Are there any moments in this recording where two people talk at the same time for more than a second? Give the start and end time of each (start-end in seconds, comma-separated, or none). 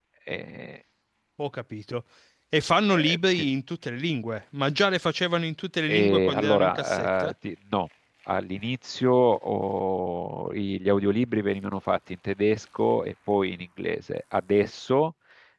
5.9-7.3